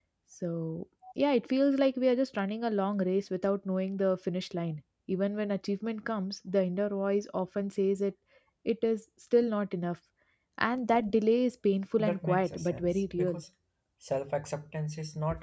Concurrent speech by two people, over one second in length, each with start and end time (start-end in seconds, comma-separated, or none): 12.0-13.4